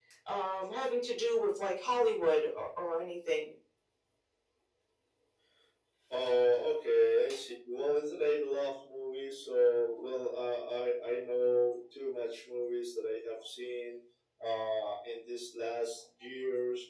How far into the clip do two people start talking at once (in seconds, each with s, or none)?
none